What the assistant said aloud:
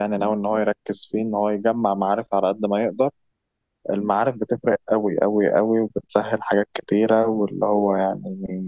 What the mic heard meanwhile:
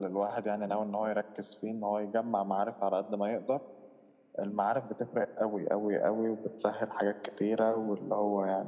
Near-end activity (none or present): none